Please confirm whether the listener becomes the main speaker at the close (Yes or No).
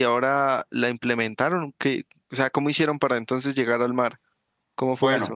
Yes